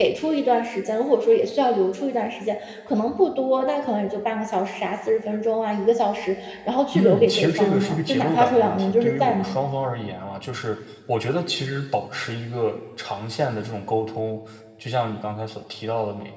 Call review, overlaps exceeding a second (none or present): present